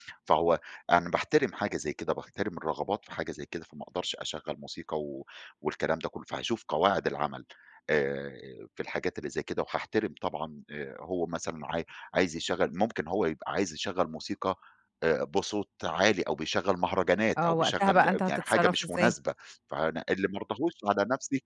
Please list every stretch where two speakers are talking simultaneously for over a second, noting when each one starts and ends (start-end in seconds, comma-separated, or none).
17.4-19.1